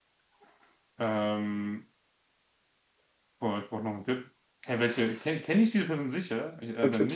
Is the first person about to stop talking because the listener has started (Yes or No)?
Yes